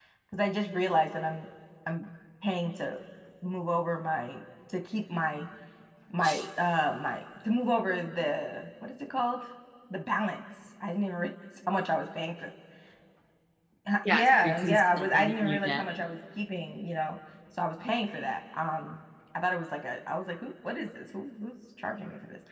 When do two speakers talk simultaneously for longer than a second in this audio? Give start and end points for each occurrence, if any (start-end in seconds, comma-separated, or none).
14.1-15.8